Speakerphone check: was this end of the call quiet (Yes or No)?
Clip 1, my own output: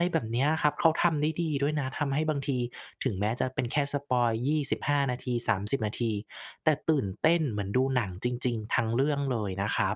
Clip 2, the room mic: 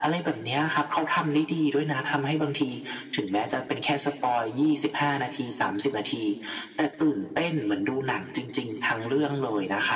Yes